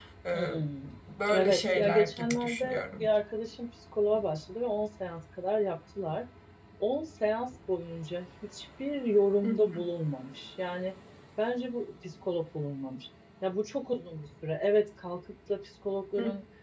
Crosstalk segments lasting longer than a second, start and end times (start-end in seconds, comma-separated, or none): 1.3-3.1